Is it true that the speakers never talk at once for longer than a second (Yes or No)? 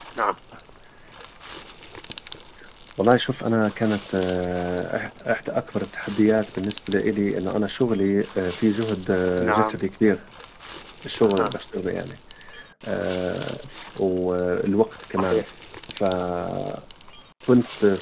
Yes